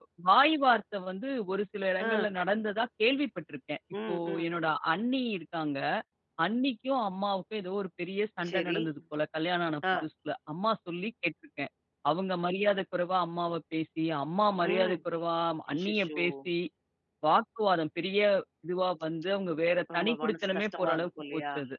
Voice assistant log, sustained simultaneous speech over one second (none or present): present